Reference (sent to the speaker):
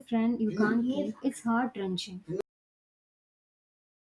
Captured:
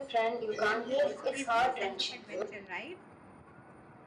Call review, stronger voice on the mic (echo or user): echo